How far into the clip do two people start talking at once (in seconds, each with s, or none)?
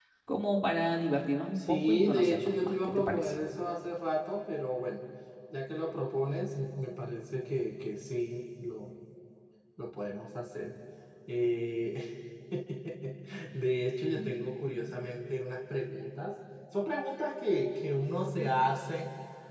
1.6 s